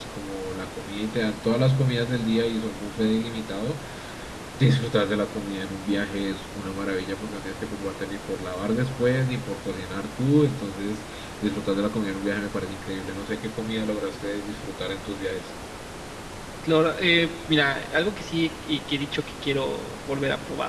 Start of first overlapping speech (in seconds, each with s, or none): none